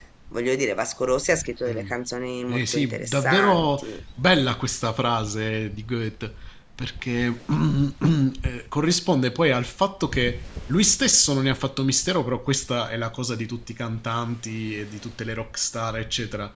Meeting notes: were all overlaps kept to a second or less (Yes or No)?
No